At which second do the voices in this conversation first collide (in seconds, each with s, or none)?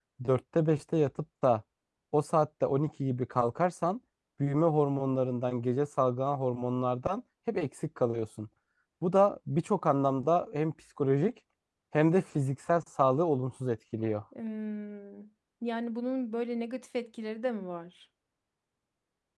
none